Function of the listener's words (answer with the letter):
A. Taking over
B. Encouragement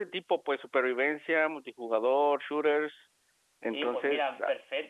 A